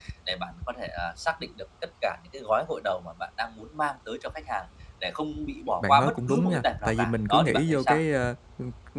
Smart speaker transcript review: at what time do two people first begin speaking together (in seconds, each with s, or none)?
5.8 s